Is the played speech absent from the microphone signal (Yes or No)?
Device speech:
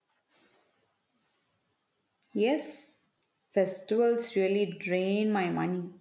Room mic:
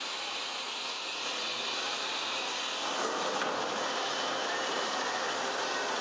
Yes